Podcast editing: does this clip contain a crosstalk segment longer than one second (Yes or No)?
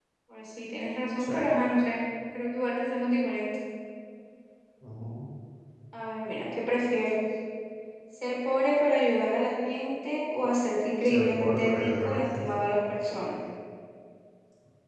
Yes